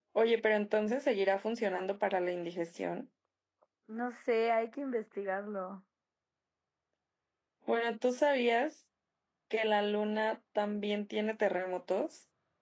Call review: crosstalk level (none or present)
none